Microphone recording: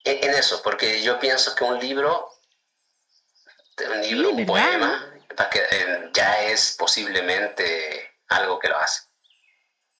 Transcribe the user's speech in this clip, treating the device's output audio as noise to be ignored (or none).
Sí, ¿verdad? ¿No?